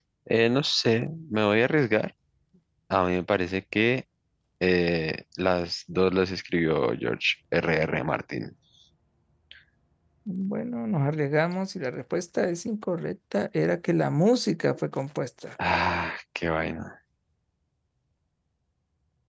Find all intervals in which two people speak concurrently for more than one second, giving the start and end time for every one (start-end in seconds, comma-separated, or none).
none